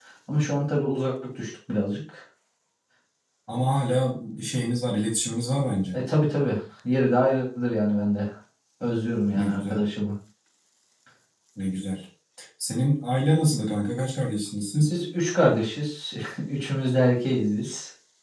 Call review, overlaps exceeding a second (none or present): none